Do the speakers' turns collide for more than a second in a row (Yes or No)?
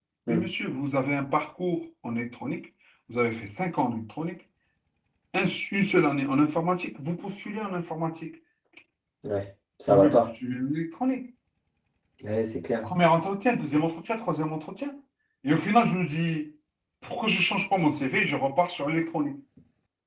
No